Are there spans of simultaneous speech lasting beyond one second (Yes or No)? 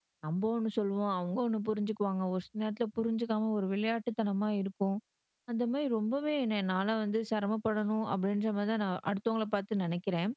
No